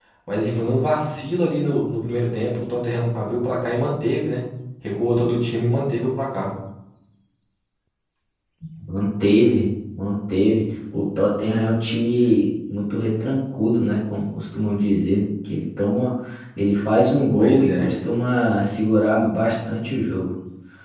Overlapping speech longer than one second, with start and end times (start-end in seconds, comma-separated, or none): none